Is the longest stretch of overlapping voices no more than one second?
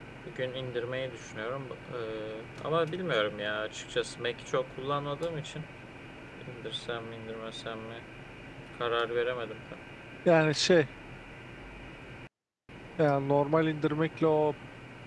Yes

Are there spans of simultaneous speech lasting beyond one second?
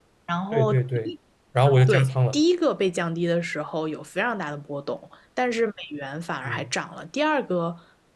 No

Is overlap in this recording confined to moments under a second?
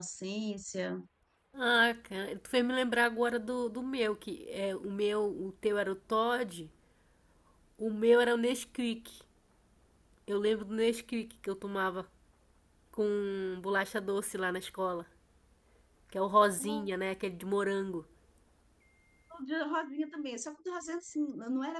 Yes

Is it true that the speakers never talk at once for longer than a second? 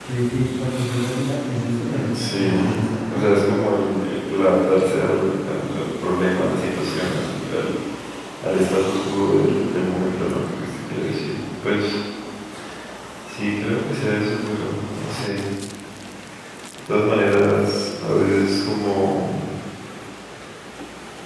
No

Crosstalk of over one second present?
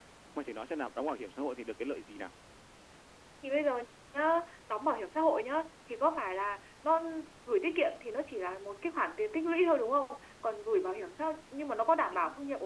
No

